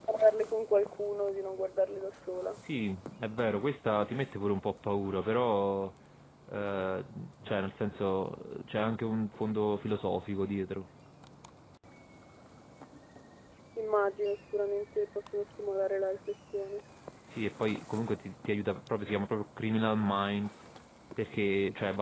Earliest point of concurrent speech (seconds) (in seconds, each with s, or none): none